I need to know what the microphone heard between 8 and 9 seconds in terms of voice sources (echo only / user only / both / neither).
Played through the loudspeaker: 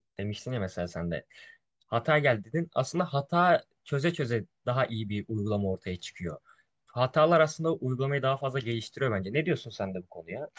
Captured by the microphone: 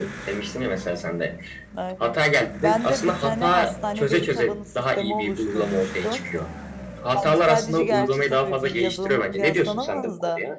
both